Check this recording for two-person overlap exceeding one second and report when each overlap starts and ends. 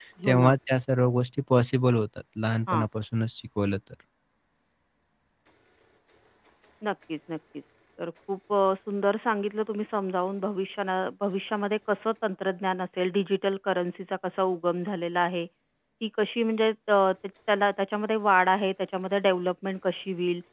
none

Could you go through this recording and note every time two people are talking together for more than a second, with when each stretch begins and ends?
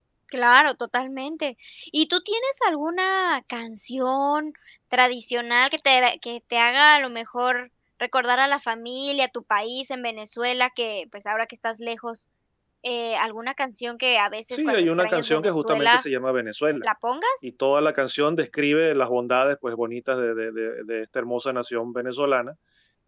14.5-16.0

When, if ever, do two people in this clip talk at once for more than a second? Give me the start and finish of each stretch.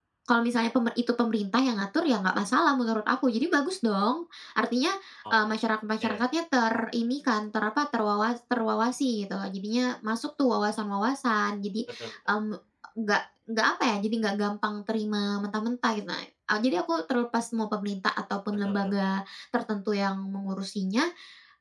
none

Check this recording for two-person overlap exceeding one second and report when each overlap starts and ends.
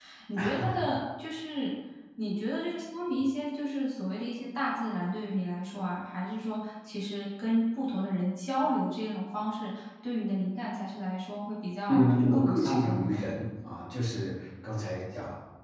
11.9-13.2

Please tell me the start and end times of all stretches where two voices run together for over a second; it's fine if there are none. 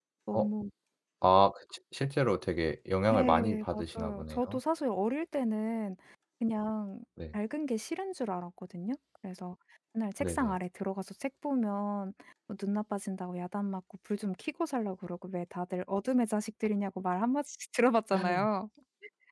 3.1-4.6

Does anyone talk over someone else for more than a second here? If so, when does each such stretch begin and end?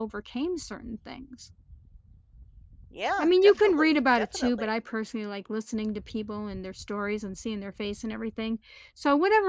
3.2-4.7

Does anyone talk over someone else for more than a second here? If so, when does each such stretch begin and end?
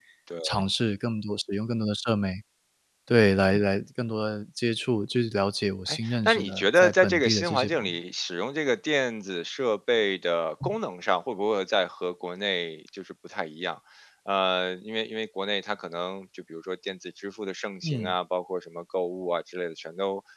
5.9-7.9

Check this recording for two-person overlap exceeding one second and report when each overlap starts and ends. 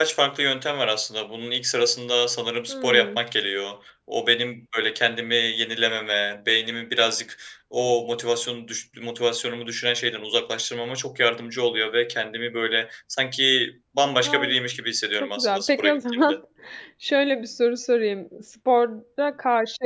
15.1-16.4

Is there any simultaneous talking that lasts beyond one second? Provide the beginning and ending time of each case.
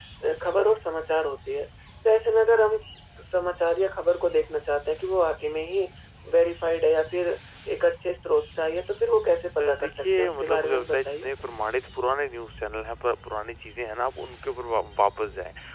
9.6-11.3

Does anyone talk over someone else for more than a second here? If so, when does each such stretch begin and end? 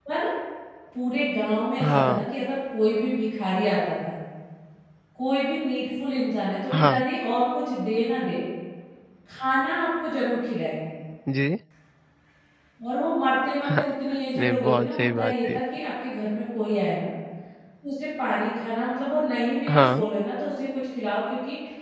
14.4-15.6

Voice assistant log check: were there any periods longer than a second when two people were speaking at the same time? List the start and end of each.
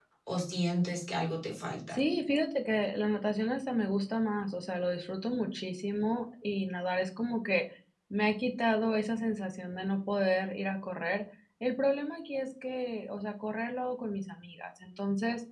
none

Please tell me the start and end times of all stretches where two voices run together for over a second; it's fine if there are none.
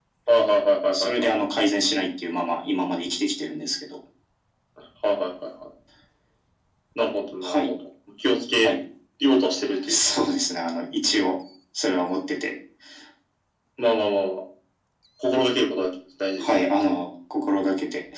none

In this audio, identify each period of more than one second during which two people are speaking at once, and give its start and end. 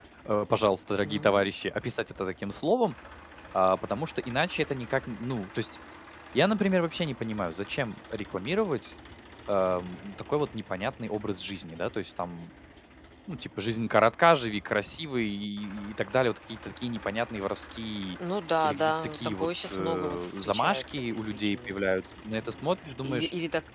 18.6-21.8

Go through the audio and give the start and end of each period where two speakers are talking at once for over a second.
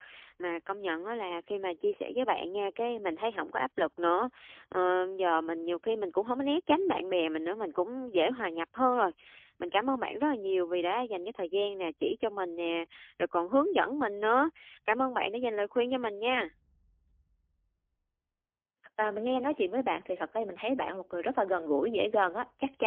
none

